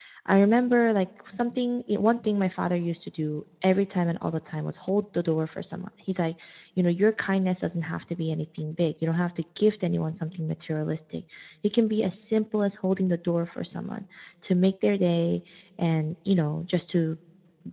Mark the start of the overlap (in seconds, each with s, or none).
none